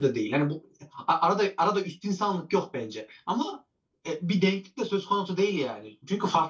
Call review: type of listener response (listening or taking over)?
listening